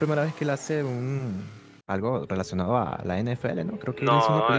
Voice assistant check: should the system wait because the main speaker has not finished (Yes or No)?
No